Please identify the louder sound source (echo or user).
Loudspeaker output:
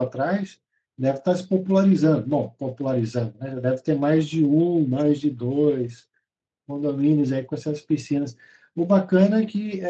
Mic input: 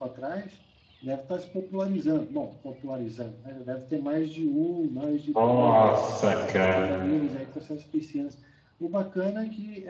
user